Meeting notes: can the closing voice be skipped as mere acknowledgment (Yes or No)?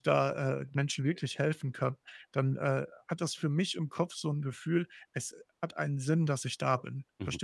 No